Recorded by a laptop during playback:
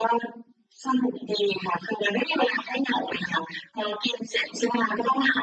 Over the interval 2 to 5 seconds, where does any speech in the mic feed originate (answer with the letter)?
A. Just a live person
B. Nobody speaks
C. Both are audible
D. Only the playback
D